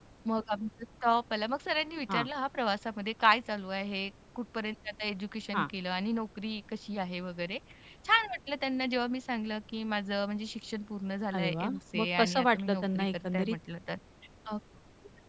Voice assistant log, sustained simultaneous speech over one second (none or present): present